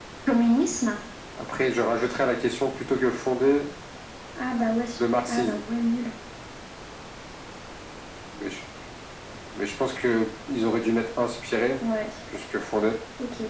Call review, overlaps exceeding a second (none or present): none